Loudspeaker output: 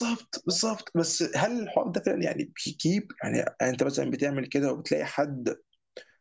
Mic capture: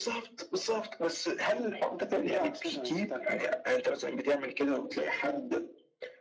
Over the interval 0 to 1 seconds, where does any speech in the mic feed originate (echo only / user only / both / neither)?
echo only